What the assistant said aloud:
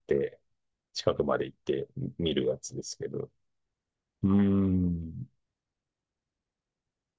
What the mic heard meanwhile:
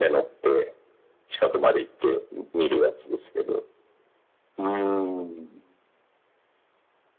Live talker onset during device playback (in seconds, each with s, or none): none